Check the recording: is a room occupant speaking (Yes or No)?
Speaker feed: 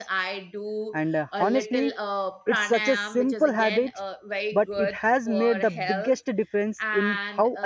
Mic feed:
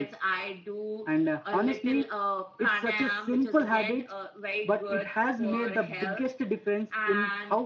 No